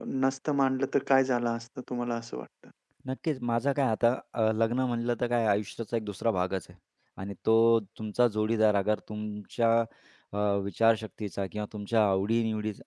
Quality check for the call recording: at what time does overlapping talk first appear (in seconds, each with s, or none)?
none